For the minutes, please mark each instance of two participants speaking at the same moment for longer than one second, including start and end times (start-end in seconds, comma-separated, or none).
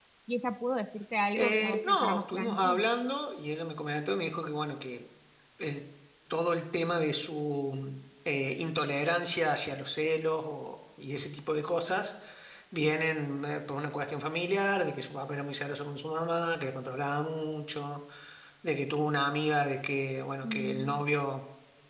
1.4-2.8